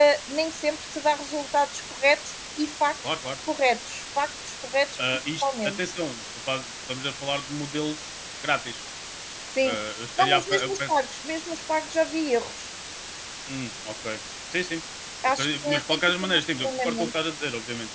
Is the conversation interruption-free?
No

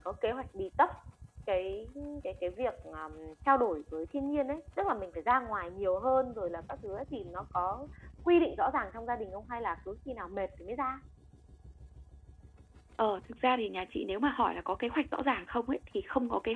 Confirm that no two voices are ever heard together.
Yes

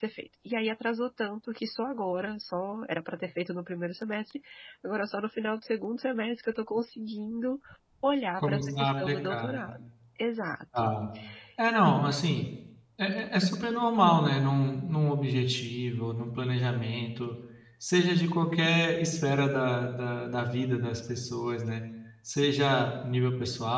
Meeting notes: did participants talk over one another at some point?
Yes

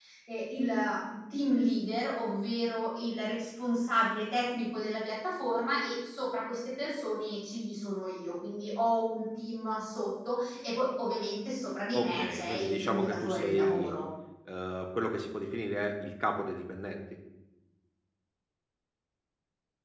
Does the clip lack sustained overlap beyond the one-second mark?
No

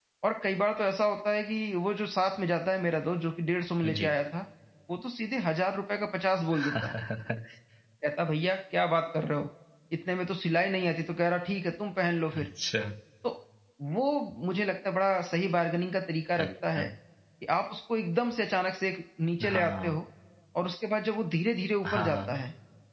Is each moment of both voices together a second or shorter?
Yes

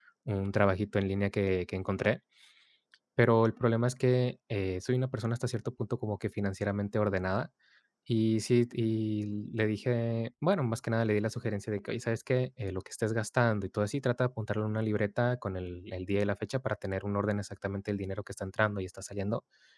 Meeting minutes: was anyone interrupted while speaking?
No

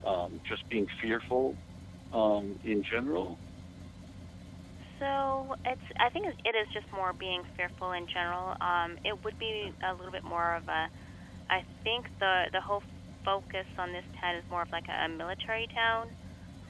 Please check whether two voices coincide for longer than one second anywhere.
No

